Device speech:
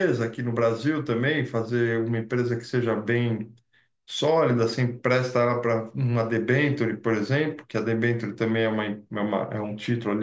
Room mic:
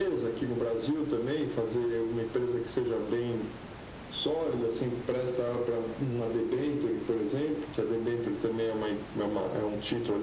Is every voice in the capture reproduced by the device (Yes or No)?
Yes